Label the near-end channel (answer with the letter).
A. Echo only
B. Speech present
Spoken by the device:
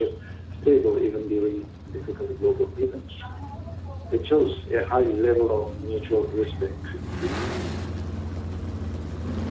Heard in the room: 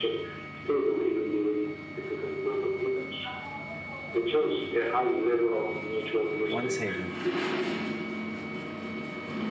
B